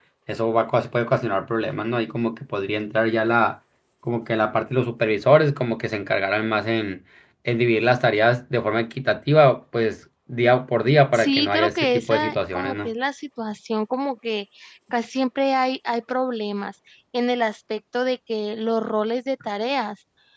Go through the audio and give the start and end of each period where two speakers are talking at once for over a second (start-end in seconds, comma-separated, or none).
11.1-12.9